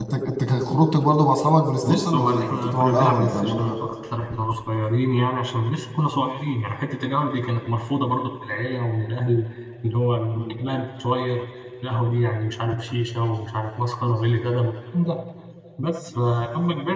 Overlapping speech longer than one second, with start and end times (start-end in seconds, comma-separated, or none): 1.8-3.8